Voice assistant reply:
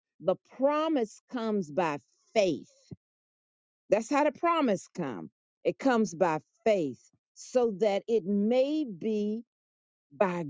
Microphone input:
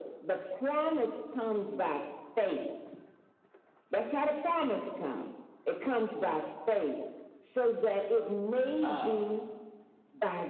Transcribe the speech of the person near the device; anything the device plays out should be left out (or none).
Uh,